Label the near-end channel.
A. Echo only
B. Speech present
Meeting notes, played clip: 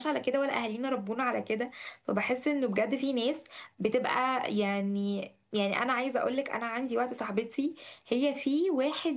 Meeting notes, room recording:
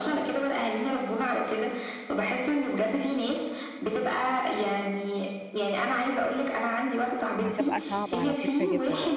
B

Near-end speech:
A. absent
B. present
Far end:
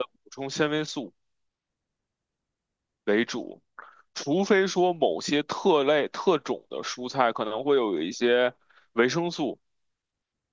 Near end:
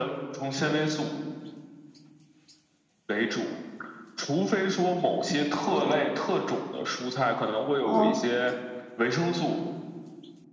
B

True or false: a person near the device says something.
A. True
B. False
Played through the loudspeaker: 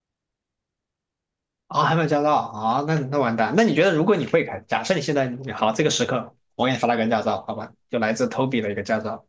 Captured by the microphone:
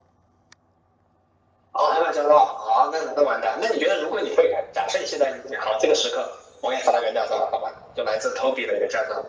B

